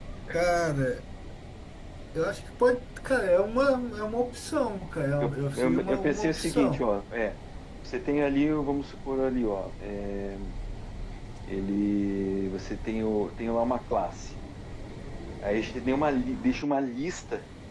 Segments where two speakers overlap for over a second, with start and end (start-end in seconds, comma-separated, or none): 5.2-6.8